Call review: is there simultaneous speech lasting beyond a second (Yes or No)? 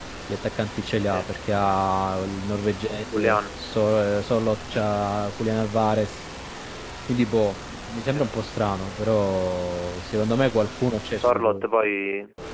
No